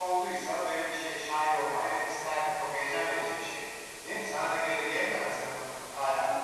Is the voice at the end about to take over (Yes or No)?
Yes